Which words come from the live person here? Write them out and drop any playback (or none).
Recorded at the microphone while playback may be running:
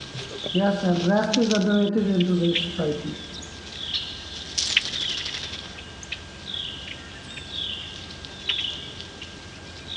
Yes, and rest is underrated in today's society.